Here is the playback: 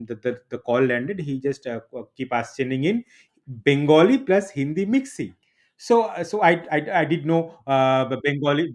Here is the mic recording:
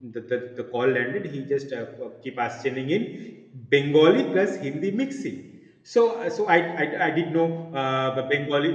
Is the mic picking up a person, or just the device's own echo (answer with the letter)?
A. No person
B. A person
A